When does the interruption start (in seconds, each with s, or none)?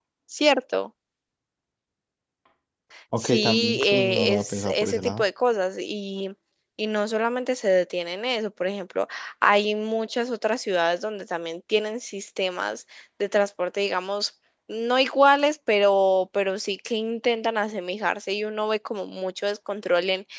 3.2 s